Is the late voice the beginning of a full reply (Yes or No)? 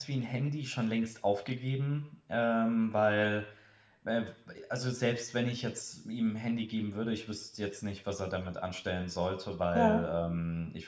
No